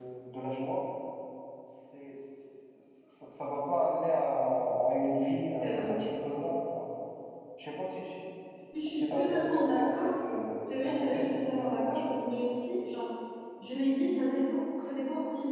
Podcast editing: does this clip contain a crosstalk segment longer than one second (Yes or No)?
Yes